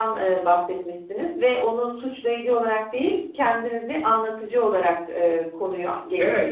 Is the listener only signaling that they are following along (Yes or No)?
No